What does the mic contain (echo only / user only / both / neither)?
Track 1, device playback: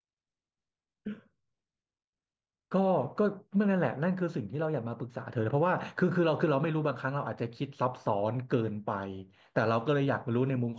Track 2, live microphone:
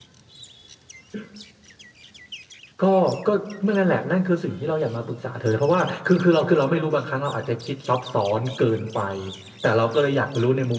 echo only